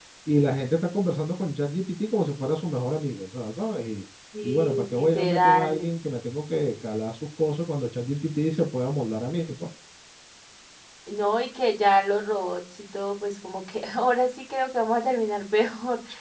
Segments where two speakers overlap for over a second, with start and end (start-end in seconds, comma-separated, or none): 4.4-5.9